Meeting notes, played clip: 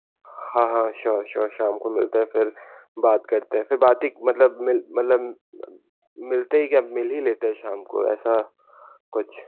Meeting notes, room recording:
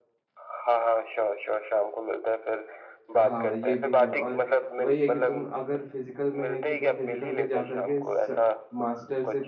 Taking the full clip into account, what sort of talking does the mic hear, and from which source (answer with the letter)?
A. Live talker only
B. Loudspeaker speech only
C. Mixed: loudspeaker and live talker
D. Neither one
C